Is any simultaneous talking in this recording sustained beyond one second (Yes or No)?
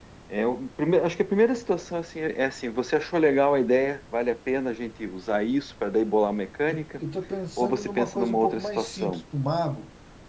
Yes